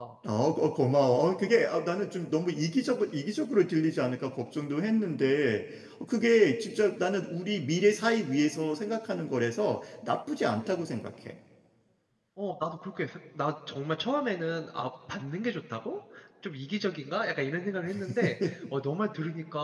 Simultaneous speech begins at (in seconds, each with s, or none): none